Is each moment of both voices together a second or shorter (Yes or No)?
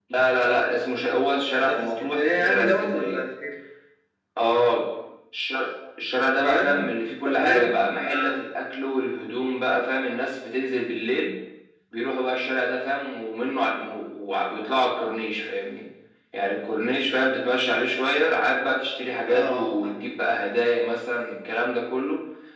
No